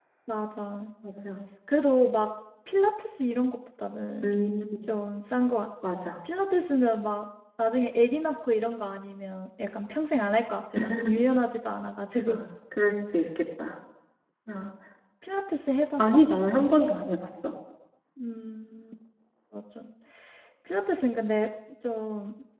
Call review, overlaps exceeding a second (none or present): none